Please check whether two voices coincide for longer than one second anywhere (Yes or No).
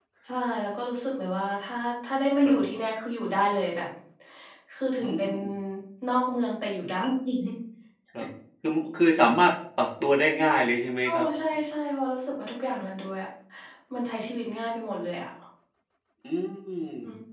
No